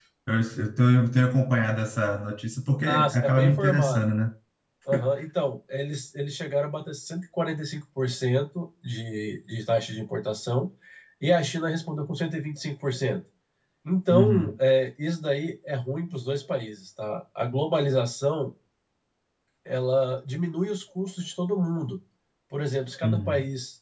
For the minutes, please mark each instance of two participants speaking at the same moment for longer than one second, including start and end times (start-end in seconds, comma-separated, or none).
2.8-4.0